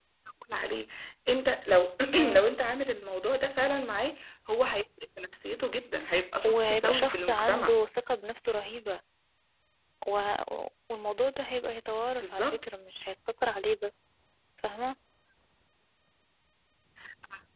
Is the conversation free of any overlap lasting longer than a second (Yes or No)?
No